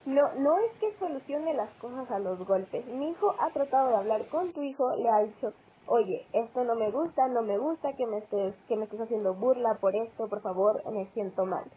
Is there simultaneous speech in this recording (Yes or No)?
No